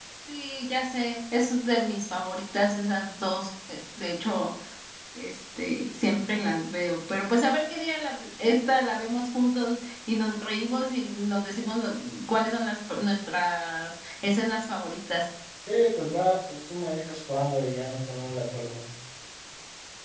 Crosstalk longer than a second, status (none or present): none